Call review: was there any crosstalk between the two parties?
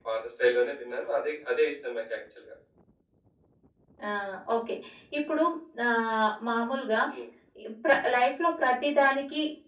No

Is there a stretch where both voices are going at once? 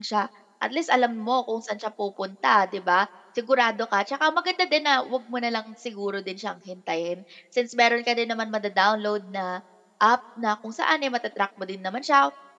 No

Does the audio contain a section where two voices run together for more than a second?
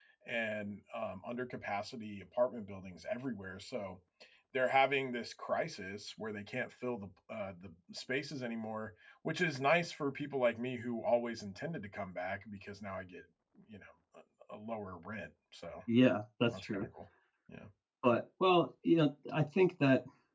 No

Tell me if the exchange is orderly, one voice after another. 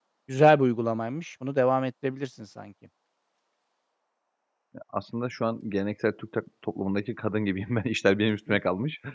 Yes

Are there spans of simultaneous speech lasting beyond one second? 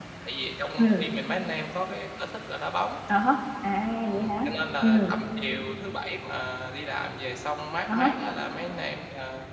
No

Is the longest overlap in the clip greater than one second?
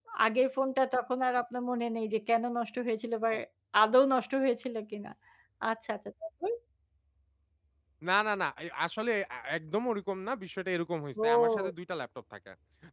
No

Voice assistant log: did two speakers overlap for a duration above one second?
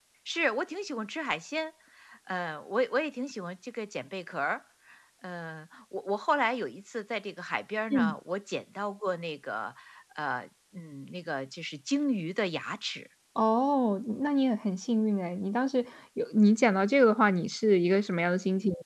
No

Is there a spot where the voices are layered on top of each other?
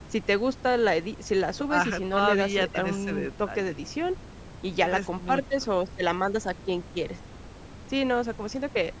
Yes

